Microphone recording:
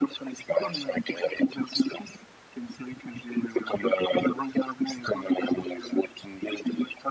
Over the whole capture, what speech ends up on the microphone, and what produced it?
echo only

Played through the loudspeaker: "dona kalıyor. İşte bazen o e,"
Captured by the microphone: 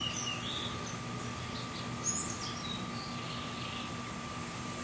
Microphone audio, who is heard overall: neither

